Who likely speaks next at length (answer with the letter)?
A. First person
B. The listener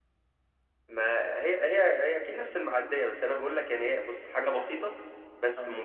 A